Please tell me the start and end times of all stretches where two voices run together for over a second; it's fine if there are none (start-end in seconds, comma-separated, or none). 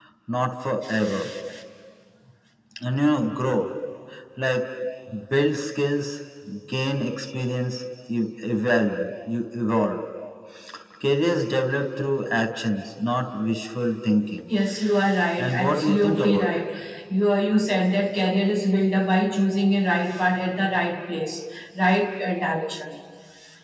15.4-16.6